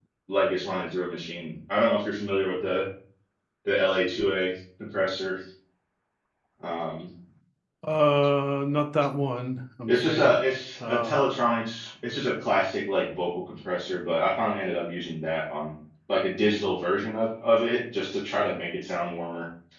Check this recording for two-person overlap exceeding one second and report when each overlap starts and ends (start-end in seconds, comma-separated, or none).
none